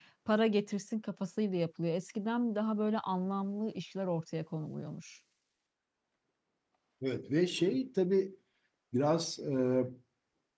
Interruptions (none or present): none